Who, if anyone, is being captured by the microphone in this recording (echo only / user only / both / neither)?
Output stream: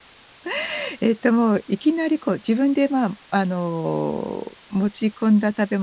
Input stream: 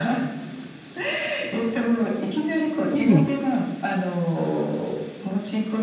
both